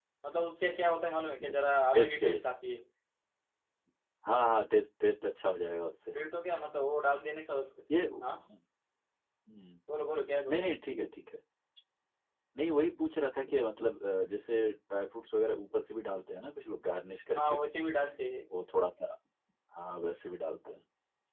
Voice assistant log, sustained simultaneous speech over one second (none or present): none